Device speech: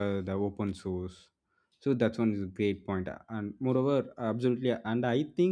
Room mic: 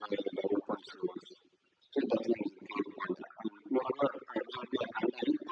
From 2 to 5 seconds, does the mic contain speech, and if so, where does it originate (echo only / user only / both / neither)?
echo only